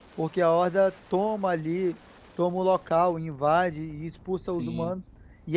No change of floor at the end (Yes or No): No